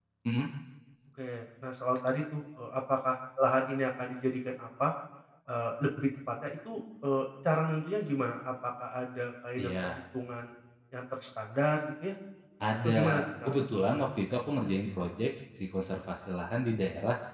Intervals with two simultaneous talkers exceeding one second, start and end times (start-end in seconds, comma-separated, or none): 12.8-14.5